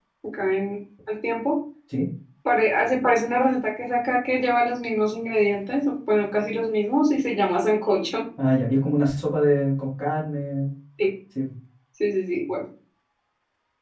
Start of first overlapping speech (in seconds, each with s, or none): none